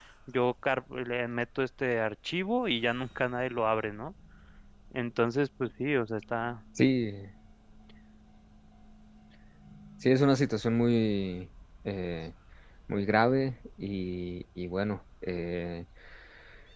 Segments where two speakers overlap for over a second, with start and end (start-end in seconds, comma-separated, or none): none